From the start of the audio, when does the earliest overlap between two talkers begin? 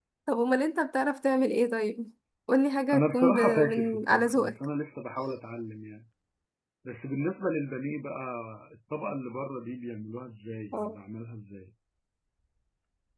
2.9 s

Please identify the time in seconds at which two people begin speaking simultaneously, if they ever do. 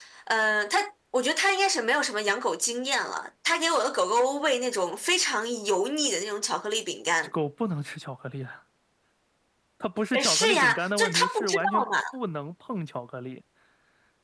10.1 s

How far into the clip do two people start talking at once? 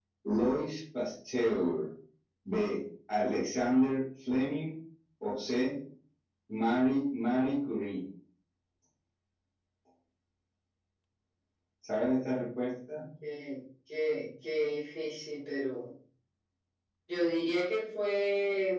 none

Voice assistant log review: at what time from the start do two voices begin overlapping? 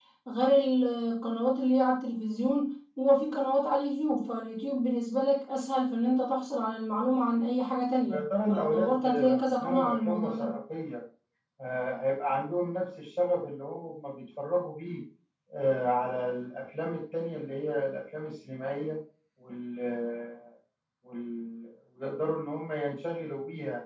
8.0 s

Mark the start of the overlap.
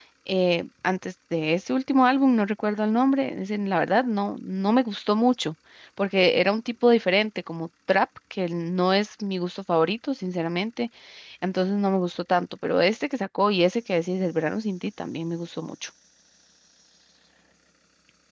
none

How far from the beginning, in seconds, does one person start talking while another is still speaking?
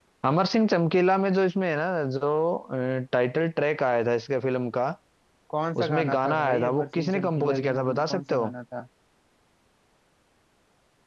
5.8 s

